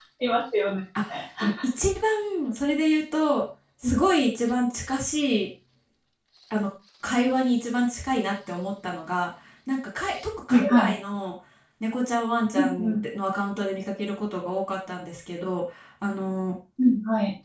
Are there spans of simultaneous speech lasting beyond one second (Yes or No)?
No